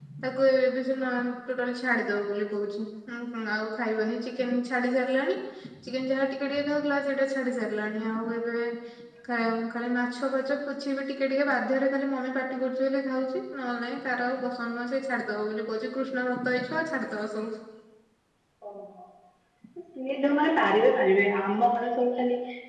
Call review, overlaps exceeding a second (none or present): none